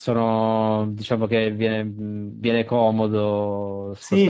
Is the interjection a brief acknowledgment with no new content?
No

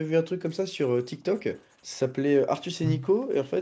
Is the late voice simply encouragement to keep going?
Yes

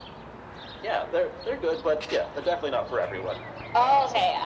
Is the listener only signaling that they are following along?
No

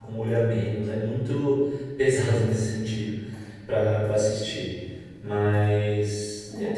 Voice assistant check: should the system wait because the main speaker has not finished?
No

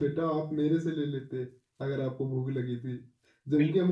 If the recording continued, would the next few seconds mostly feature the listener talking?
No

